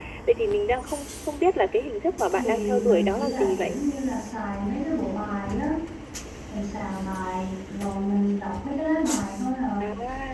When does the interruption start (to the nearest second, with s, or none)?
2 s